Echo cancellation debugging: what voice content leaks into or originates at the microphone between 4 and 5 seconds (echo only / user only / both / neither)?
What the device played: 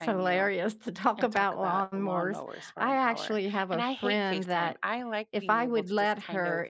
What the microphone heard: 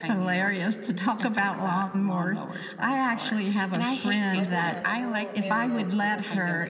both